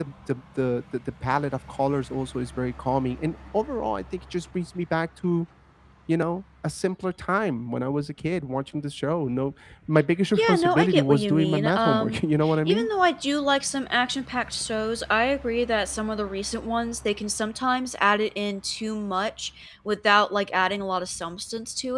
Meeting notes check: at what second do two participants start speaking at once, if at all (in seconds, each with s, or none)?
10.3 s